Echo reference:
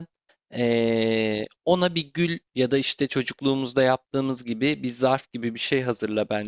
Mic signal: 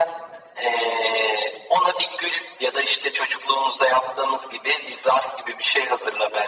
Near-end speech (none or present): none